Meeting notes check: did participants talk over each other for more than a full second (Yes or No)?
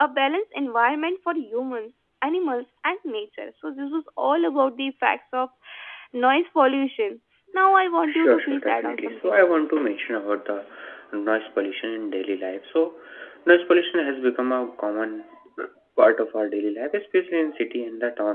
Yes